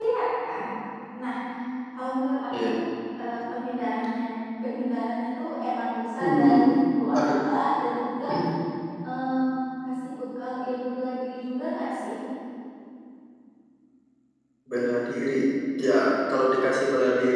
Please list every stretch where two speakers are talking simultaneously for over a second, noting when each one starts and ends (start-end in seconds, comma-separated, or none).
none